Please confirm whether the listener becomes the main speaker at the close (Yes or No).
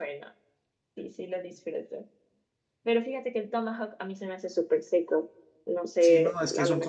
Yes